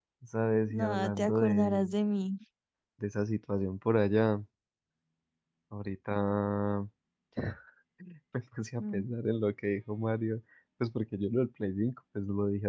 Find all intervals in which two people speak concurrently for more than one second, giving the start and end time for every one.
0.7-2.0

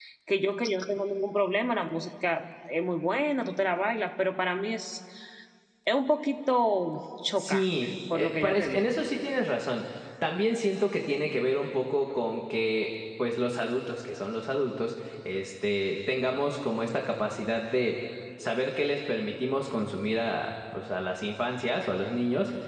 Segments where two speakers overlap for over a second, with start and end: 7.4-8.9

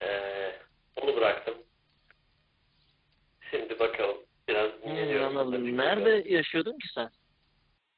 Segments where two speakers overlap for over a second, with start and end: 4.8-6.2

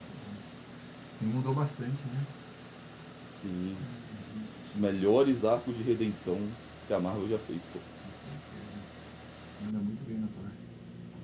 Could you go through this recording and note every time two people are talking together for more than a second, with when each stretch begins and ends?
none

